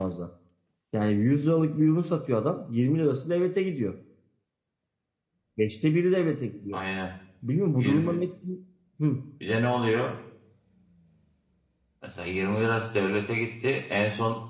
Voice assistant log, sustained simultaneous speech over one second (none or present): none